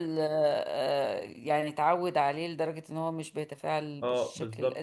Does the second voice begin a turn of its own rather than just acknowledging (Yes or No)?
Yes